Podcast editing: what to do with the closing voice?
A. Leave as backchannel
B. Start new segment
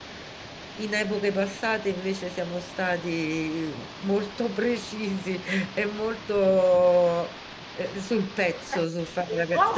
B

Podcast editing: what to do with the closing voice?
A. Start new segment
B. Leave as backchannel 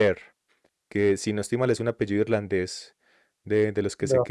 B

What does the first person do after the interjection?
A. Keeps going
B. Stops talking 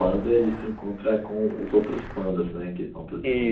B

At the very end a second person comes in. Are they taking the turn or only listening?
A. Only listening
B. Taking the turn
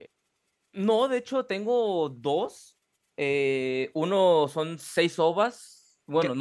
B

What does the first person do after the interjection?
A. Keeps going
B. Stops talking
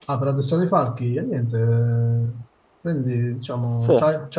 A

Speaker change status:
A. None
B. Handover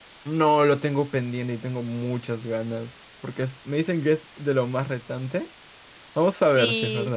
B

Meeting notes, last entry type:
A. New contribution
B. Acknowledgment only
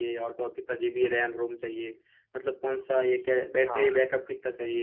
B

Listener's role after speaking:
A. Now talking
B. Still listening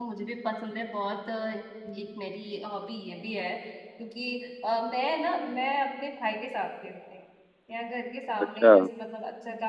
B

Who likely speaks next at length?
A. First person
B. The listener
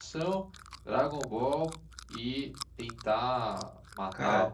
A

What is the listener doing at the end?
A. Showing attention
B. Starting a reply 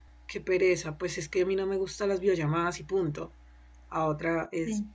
A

